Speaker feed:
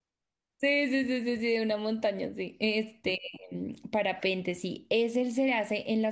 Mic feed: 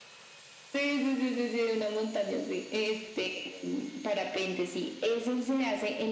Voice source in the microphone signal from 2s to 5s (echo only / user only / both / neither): echo only